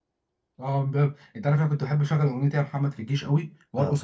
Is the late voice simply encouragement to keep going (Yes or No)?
Yes